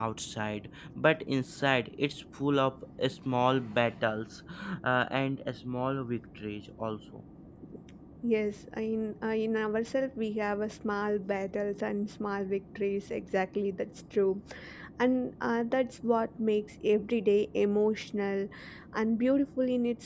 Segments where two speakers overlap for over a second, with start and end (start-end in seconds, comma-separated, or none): none